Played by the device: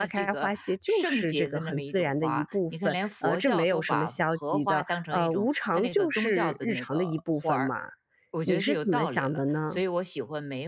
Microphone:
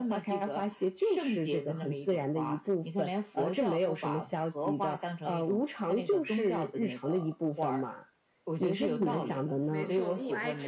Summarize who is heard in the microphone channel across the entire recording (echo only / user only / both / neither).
both